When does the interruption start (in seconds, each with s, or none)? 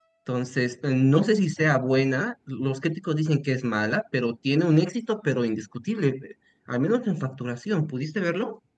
none